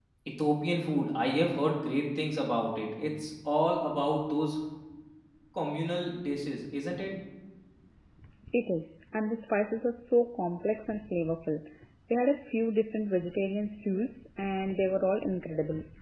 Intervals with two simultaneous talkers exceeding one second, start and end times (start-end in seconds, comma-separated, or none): none